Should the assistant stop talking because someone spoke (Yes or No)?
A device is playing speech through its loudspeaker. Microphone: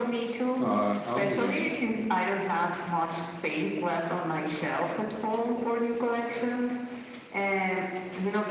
Yes